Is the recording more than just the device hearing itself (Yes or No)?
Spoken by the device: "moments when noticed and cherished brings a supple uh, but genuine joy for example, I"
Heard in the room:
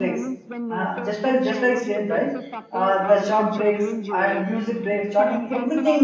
Yes